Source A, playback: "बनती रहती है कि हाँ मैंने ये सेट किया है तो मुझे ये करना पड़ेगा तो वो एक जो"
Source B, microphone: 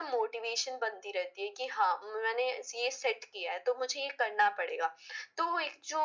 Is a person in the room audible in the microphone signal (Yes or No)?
No